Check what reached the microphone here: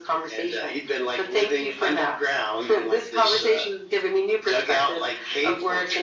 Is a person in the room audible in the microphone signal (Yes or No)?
No